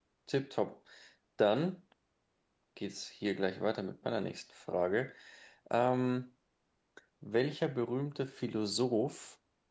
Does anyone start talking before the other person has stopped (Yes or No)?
No